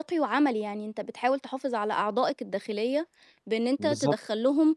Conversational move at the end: listening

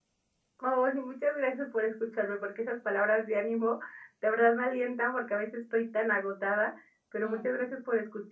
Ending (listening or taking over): listening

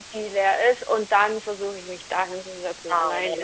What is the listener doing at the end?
taking over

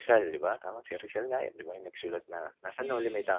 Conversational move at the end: taking over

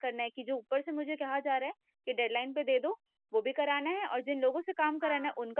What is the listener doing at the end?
listening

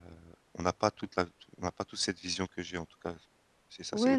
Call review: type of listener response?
taking over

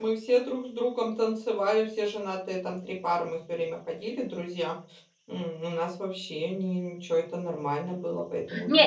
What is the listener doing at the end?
taking over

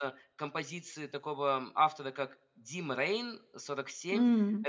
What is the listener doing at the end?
listening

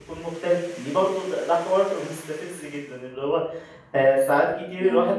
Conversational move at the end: listening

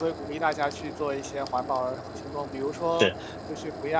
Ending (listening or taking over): listening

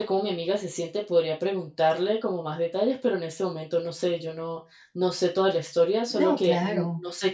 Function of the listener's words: listening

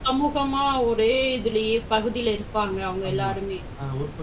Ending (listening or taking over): taking over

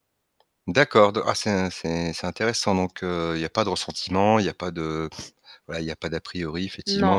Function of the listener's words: listening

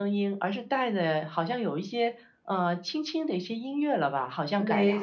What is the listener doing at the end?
taking over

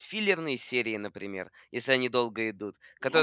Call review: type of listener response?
listening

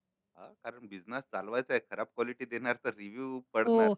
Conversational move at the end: taking over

